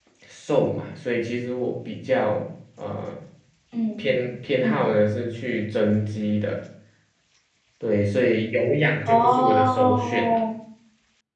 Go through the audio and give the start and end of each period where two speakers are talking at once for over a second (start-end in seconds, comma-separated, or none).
9.1-10.4